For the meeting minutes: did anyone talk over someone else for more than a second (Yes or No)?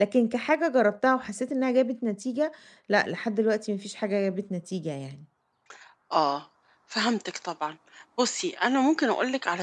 No